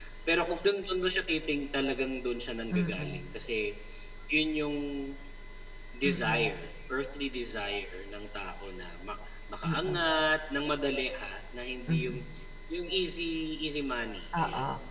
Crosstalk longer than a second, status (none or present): none